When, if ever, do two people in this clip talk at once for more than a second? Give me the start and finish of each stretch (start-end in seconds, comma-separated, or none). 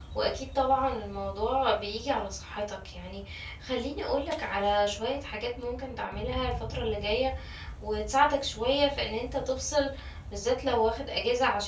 none